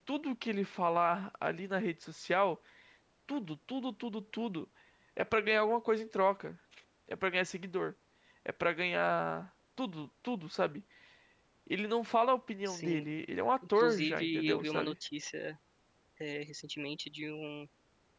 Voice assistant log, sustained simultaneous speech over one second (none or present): present